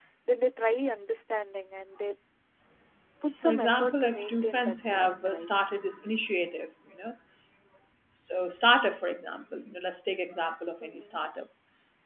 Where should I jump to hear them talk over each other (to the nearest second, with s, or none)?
3 s